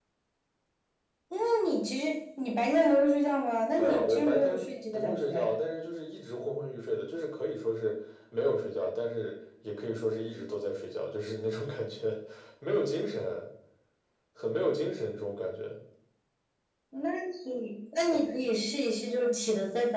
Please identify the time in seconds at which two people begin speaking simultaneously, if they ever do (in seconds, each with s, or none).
3.8 s